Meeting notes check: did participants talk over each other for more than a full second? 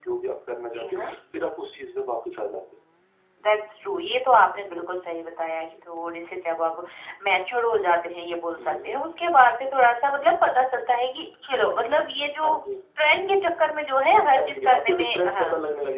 Yes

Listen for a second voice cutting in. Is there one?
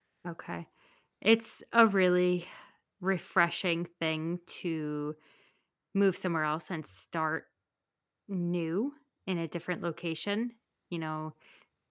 No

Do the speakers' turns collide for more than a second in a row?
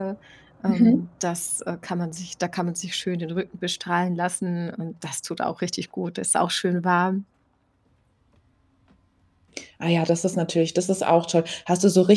No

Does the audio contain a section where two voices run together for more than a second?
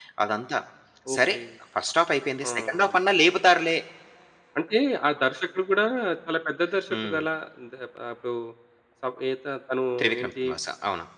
No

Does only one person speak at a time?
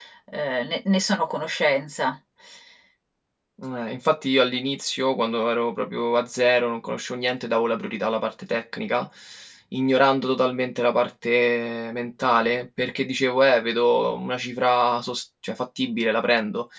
Yes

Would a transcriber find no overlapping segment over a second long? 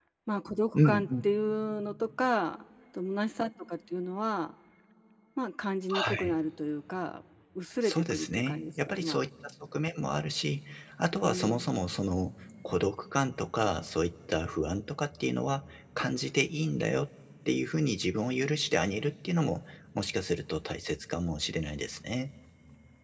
No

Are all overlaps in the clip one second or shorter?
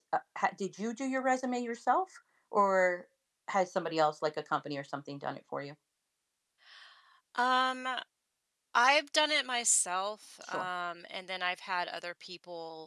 Yes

